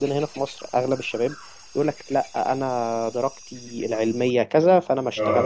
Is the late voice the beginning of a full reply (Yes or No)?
No